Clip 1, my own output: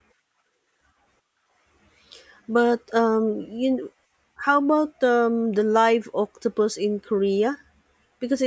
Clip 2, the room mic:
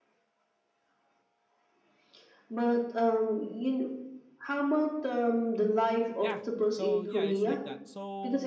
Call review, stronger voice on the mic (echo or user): echo